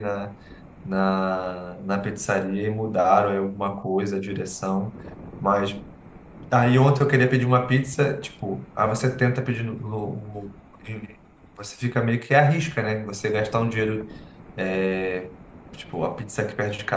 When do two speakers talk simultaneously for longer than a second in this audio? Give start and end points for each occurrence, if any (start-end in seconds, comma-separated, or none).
none